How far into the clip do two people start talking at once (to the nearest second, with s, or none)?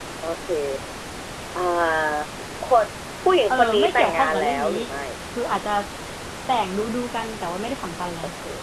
4 s